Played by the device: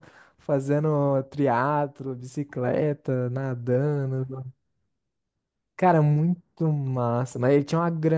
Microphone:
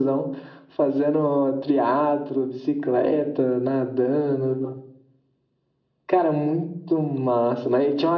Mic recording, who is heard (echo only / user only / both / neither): echo only